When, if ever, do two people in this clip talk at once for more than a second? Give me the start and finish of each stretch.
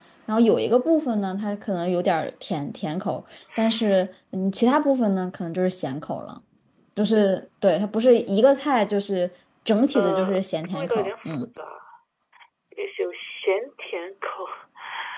9.9-11.4

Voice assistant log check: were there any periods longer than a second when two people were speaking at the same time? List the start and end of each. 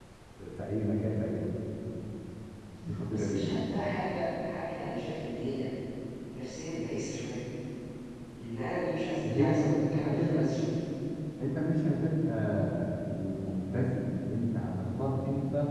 9.2-10.5

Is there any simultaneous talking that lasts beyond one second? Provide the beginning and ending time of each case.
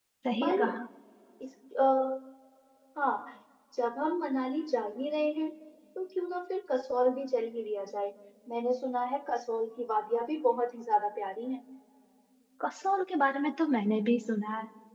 none

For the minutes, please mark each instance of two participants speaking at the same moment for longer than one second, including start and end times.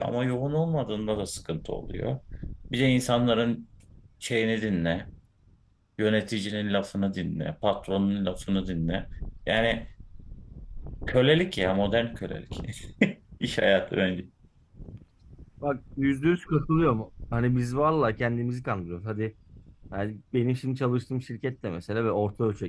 none

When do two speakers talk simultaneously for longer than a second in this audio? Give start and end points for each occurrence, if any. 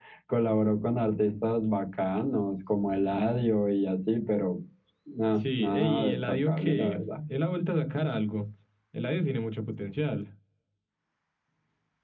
5.3-7.2

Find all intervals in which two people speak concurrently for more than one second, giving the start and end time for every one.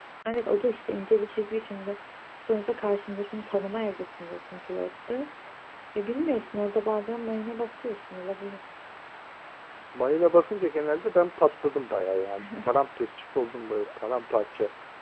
none

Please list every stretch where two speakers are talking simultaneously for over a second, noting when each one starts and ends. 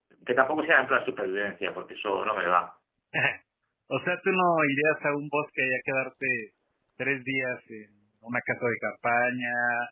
none

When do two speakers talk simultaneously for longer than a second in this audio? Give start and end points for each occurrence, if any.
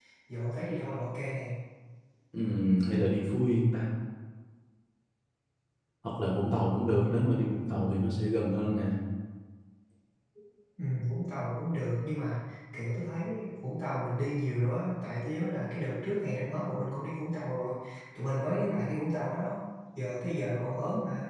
none

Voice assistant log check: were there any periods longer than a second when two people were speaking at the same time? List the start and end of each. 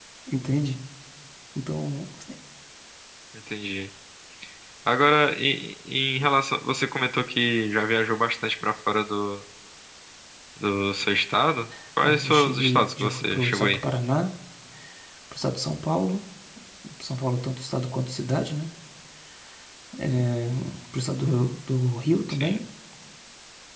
12.0-13.8

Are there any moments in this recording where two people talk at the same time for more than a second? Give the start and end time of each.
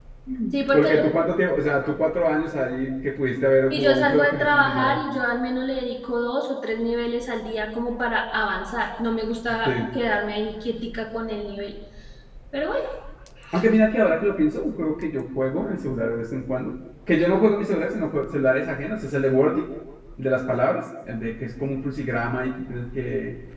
3.7-5.0

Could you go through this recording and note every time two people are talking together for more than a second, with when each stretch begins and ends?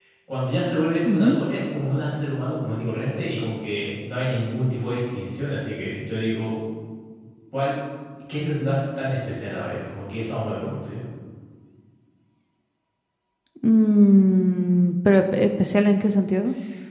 none

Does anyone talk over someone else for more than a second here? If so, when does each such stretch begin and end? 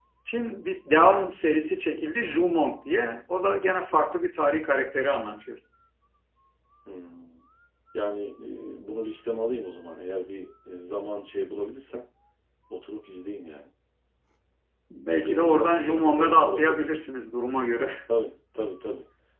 15.2-16.8

